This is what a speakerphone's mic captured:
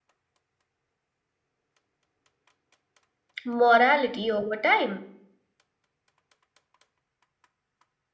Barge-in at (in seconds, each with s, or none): 3.4 s